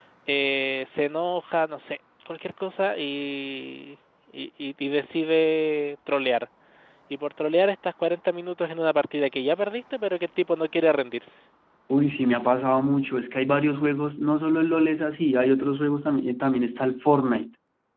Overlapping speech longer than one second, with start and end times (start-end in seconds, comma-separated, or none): none